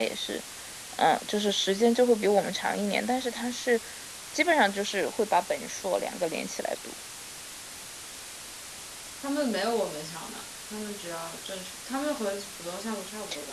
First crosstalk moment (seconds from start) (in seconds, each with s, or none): none